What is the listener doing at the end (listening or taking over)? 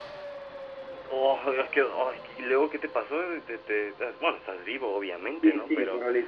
taking over